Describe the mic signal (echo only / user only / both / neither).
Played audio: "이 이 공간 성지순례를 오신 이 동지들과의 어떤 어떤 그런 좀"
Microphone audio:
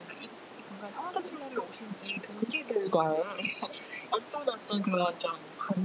echo only